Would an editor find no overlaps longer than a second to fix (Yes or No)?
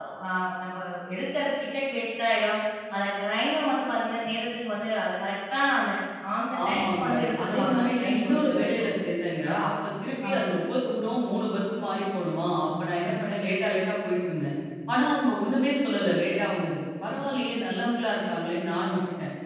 No